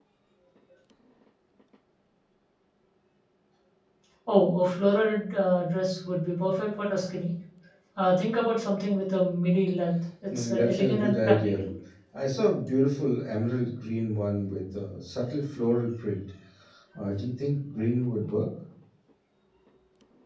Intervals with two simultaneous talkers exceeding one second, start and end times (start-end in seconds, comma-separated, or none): 10.3-11.6